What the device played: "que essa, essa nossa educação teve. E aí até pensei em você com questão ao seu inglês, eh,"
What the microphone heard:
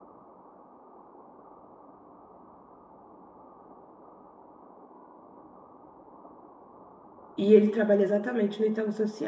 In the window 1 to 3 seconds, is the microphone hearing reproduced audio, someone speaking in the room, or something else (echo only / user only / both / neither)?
neither